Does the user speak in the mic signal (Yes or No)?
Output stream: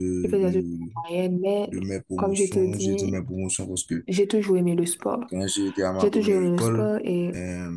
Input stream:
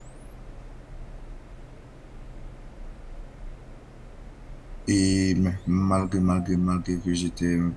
Yes